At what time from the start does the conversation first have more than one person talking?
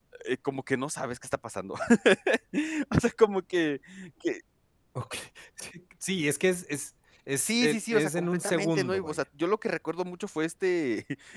7.4 s

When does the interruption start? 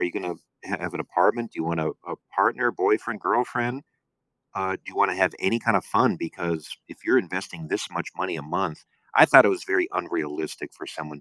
none

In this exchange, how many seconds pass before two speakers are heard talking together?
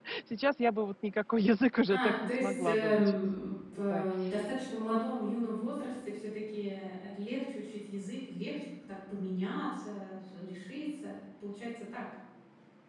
1.9 s

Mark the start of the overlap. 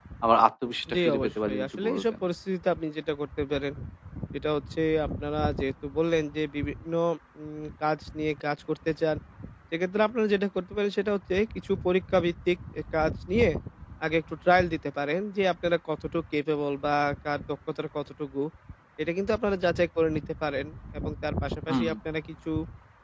0.9 s

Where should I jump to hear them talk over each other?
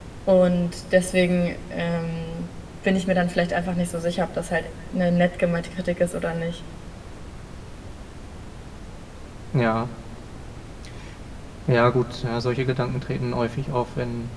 none

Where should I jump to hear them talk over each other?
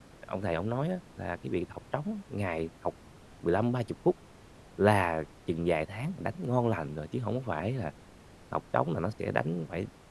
none

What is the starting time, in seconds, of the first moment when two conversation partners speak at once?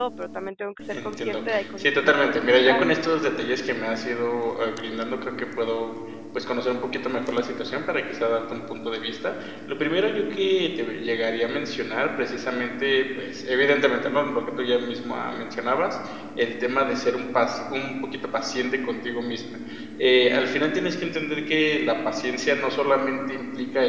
0.9 s

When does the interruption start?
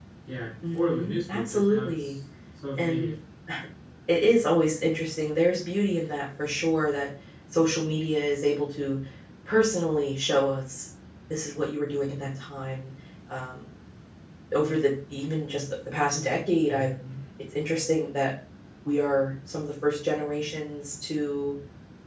0.7 s

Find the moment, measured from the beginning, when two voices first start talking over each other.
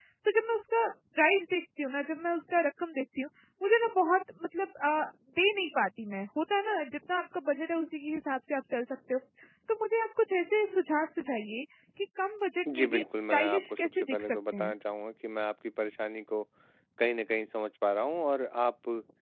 12.7 s

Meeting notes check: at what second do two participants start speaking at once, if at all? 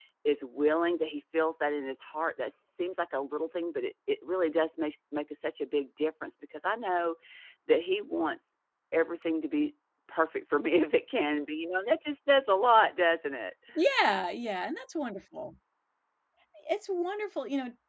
none

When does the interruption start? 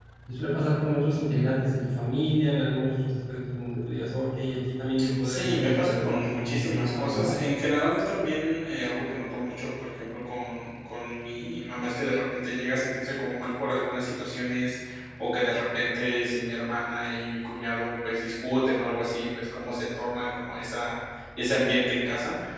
5.0 s

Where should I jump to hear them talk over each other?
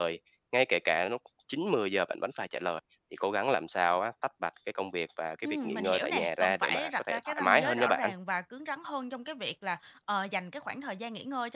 5.4 s

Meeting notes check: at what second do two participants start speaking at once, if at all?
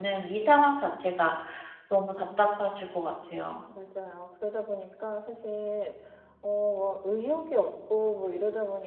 none

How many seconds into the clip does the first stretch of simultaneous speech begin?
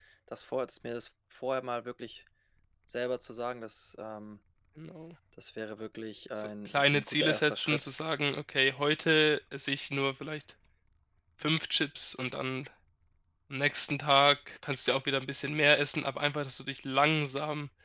6.3 s

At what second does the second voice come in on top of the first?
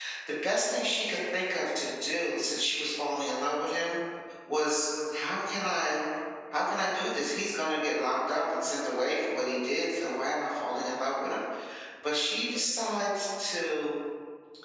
none

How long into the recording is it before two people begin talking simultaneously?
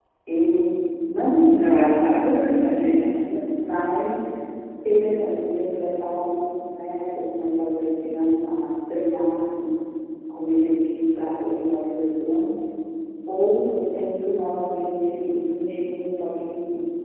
1.5 s

